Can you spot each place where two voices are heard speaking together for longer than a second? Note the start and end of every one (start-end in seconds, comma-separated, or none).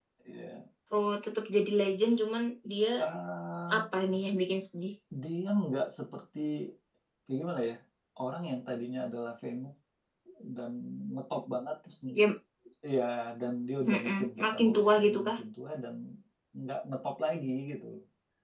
13.9-15.4